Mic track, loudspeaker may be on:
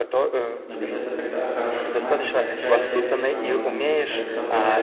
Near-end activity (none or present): present